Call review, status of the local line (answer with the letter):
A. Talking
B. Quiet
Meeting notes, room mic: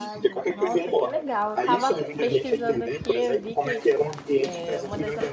A